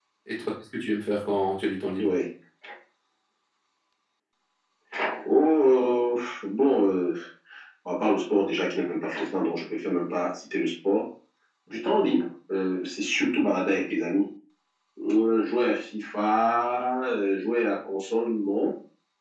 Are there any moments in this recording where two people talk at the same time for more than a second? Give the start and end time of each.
none

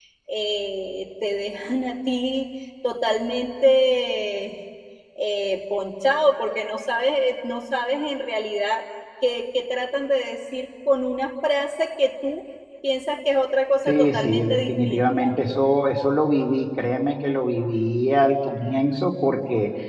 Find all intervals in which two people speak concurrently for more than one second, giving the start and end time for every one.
13.9-15.3

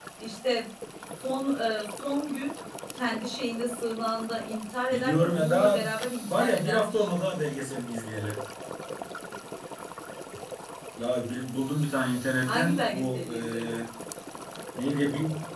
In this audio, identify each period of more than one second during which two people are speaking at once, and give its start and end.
4.9-7.2, 12.5-13.8

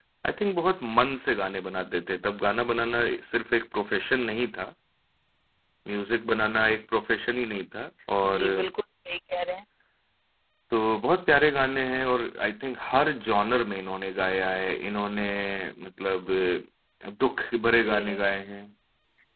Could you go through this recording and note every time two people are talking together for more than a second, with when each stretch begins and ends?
none

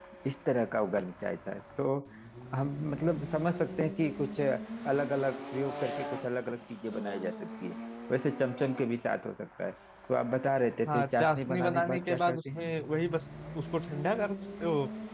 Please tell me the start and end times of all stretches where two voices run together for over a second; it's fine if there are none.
10.9-12.7

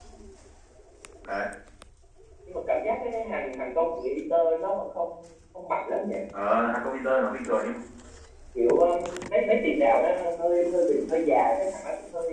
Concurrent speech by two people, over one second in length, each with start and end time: none

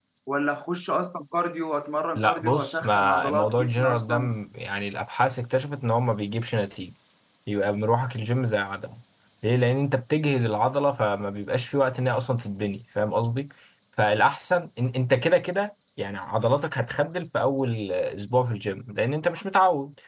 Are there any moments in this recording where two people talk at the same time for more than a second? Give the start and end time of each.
2.2-4.3

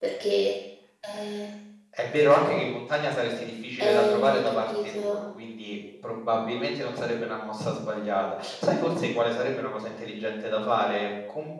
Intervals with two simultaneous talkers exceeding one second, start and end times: 3.8-5.2

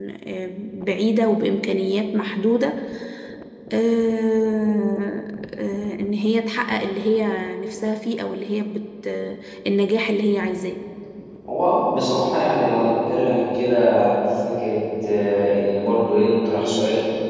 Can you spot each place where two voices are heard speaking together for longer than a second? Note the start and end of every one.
none

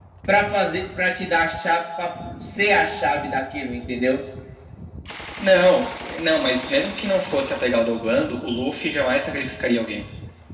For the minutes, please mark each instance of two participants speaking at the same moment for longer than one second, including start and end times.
none

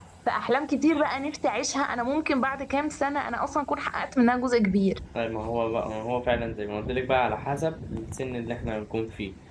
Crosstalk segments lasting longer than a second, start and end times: none

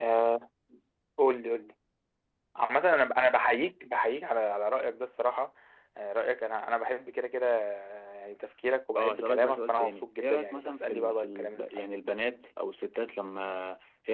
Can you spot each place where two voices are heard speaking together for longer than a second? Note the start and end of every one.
9.0-11.9

